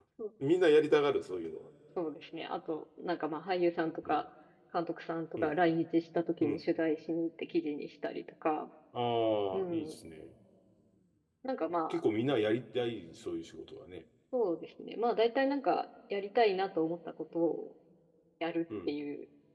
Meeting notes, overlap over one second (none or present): none